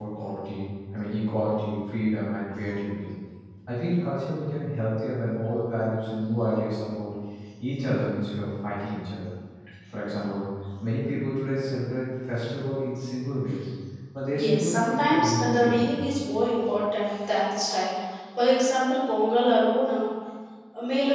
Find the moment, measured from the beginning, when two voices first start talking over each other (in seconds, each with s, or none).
14.3 s